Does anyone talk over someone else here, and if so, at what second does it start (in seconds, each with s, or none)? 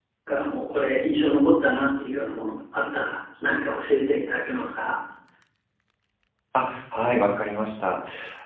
none